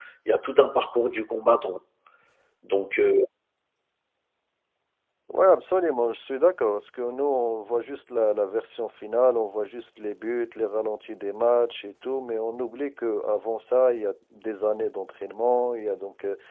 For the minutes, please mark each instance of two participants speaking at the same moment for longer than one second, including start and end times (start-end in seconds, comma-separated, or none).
none